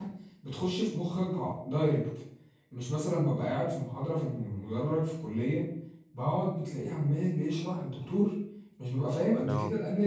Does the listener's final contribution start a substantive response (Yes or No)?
No